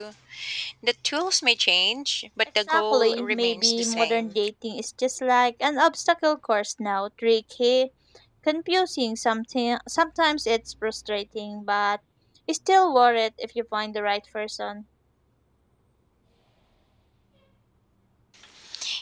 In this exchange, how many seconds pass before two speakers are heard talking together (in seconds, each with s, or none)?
2.6 s